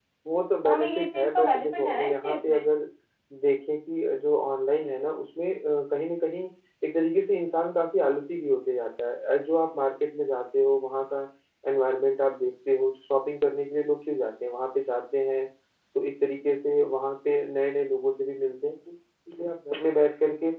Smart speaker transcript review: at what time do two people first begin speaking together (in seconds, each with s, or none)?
0.6 s